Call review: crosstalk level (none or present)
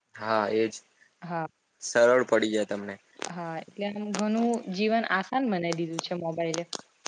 none